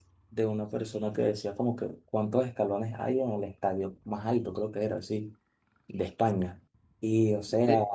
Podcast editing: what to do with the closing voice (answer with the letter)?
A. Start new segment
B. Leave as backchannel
B